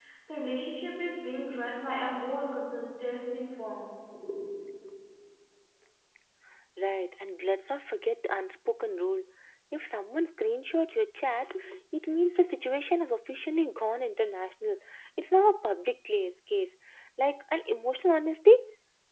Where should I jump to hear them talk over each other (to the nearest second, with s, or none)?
none